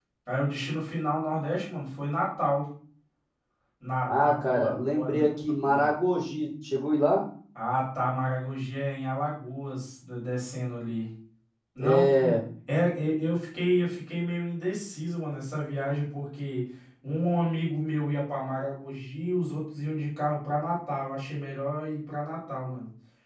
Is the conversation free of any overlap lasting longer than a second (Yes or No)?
No